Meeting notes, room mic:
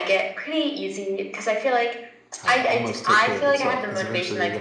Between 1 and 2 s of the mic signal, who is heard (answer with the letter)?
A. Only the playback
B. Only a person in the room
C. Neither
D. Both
A